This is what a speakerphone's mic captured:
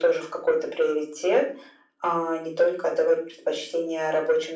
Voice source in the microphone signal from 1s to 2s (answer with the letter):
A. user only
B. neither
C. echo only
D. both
C